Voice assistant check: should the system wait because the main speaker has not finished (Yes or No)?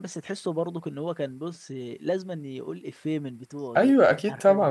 No